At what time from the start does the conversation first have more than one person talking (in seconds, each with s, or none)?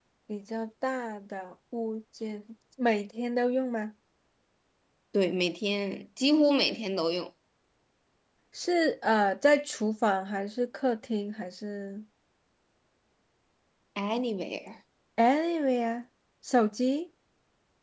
none